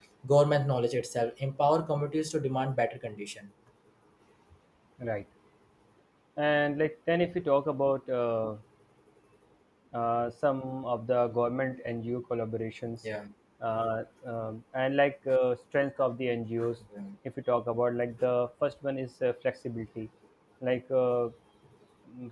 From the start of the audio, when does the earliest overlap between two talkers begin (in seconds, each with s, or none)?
none